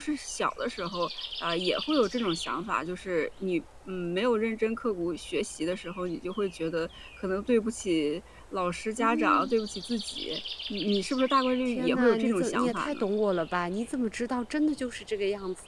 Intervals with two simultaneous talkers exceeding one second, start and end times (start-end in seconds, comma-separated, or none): 11.7-13.0